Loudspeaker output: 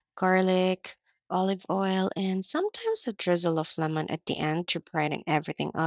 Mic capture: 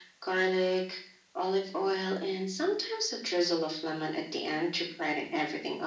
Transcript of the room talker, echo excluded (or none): none